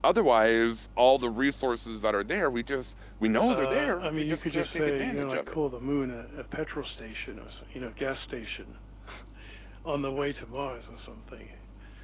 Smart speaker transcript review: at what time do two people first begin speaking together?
3.5 s

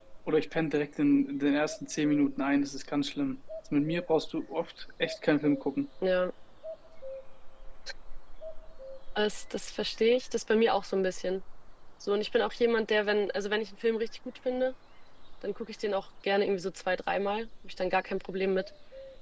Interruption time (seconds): none

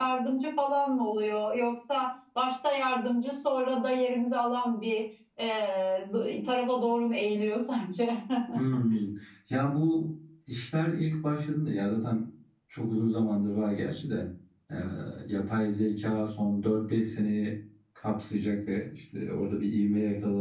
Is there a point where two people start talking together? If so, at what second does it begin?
none

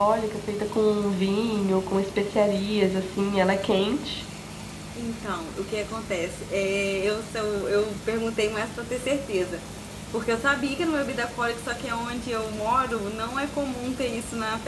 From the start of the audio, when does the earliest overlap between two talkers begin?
none

